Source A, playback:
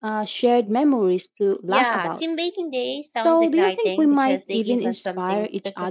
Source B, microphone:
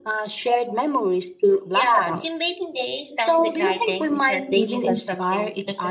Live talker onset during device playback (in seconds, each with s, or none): none